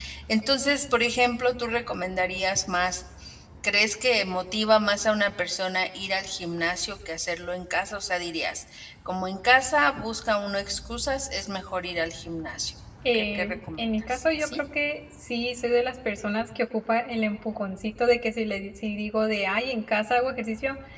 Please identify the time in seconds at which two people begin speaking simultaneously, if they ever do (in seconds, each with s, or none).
13.0 s